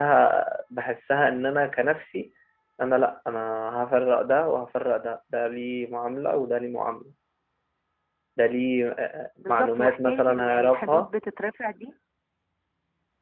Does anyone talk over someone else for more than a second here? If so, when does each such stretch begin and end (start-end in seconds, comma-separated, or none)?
9.4-11.1